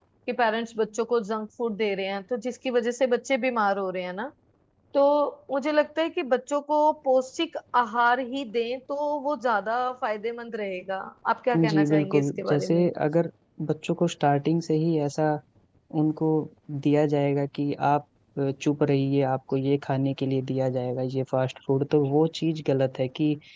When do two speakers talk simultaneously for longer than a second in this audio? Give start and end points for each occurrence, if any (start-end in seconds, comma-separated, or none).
11.7-12.9